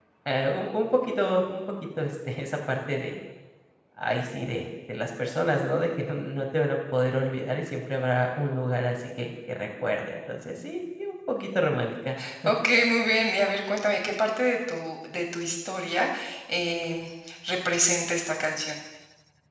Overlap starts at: none

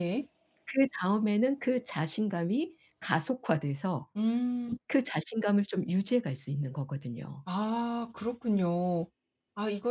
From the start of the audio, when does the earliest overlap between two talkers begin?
none

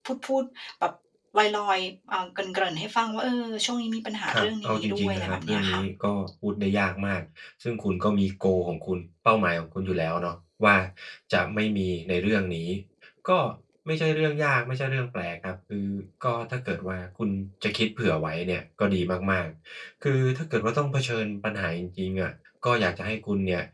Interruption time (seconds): 4.3 s

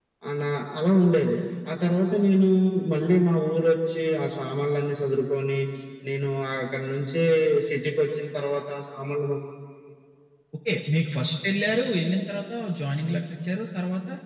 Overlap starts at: none

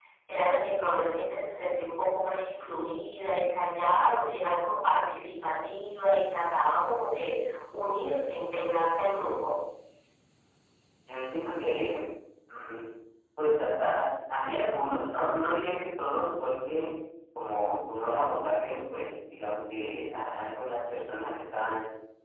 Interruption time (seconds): none

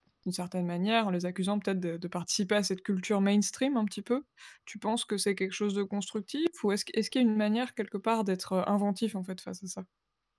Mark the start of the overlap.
none

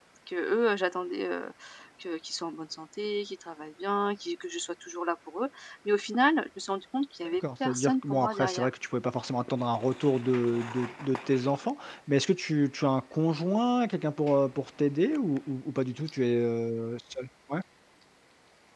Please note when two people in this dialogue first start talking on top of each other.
7.2 s

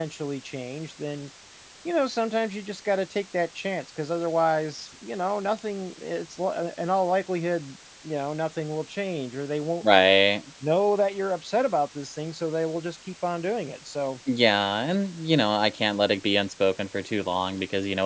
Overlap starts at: none

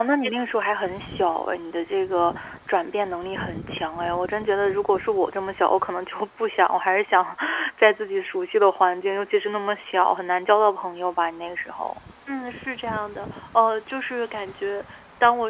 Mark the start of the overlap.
none

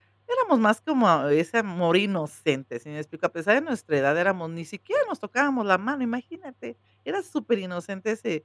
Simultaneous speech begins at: none

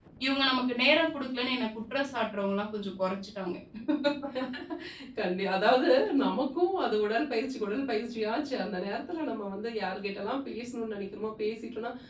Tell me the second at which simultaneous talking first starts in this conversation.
none

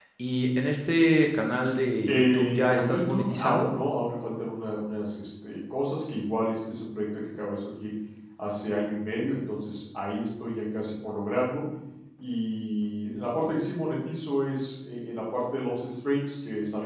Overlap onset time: 2.0 s

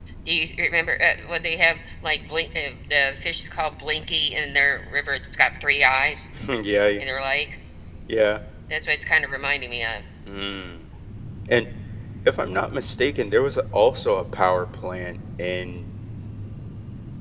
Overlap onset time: none

